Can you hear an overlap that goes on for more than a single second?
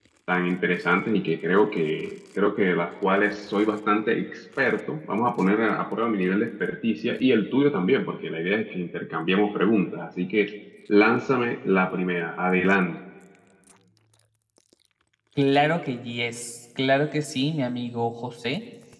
No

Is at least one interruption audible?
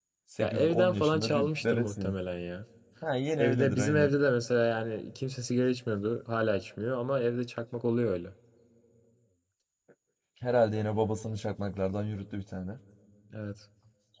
Yes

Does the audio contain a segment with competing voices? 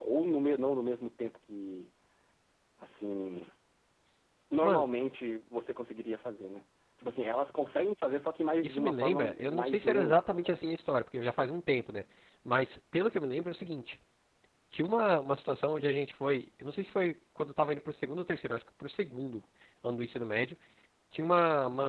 Yes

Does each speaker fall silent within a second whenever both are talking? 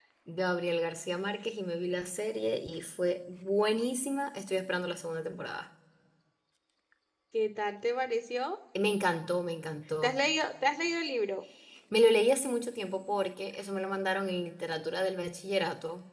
Yes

